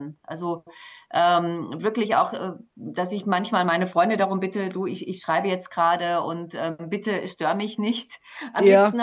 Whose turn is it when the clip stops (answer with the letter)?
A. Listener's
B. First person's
B